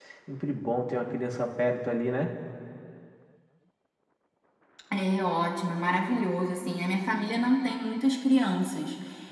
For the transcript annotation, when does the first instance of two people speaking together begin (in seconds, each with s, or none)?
none